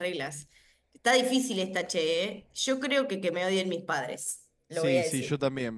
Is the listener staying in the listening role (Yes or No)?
No